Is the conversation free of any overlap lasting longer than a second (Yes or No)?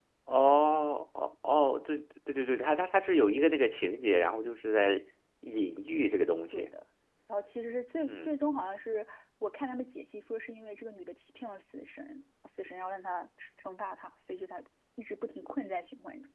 Yes